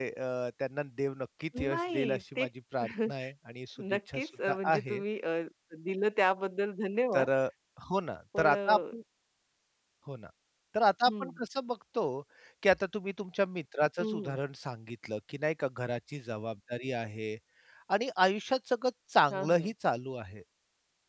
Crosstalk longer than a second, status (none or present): present